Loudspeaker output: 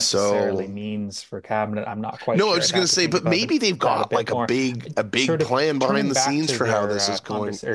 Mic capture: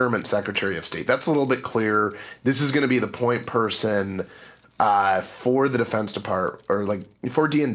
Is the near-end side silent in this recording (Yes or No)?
No